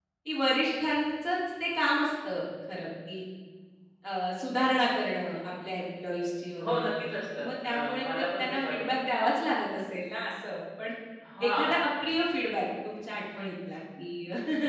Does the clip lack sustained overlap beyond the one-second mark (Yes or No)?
No